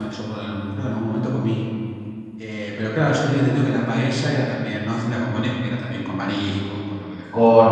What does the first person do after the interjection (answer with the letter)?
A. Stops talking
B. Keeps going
A